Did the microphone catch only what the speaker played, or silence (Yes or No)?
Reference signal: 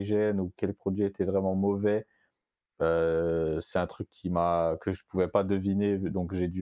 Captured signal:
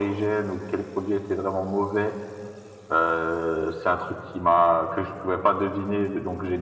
Yes